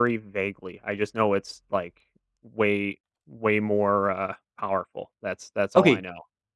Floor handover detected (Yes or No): Yes